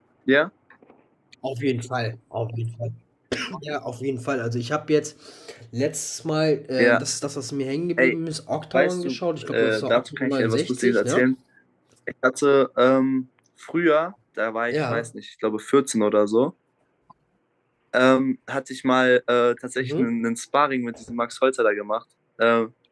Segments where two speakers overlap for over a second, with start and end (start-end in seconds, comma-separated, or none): 8.7-11.2